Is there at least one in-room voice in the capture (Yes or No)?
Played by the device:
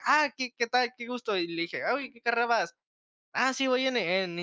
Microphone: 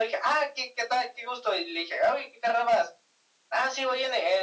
No